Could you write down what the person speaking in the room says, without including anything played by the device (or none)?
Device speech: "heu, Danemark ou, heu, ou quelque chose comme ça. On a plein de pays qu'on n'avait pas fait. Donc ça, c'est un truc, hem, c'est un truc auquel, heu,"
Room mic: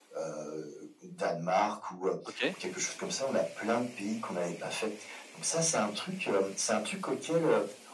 OK.